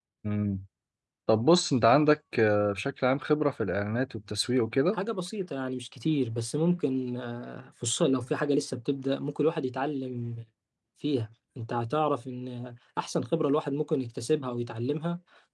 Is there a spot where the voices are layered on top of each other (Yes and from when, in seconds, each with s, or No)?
No